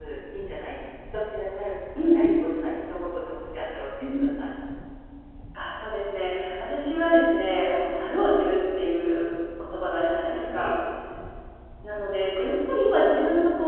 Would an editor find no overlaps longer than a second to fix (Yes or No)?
Yes